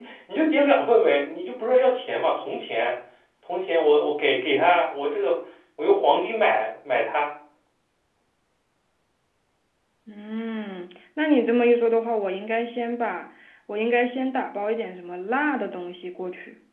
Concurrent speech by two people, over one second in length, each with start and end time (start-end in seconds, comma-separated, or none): none